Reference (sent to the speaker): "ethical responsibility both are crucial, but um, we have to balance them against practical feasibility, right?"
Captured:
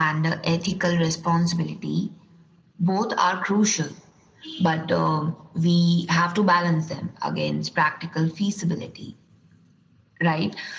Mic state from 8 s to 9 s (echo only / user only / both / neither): echo only